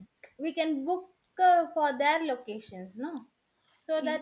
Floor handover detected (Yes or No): No